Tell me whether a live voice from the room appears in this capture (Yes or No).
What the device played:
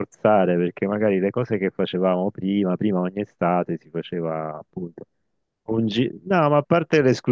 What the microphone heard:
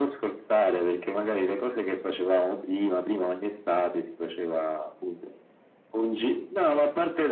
No